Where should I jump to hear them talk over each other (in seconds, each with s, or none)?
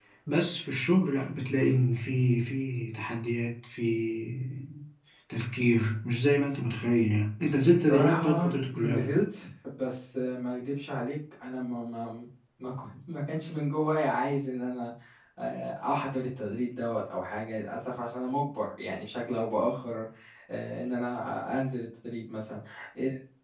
7.9 s